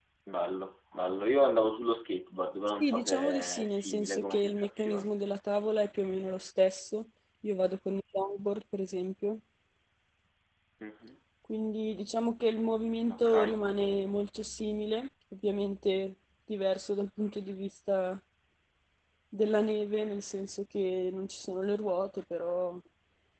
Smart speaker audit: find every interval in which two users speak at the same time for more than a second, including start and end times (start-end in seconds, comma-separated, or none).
2.8-5.1